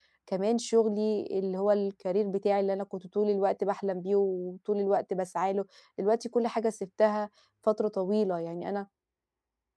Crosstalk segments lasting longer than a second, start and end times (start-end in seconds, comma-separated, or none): none